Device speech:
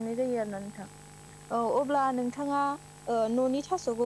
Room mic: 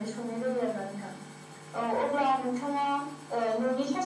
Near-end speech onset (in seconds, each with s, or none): none